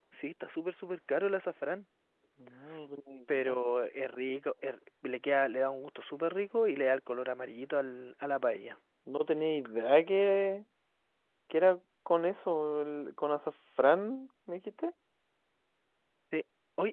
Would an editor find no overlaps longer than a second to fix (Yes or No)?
Yes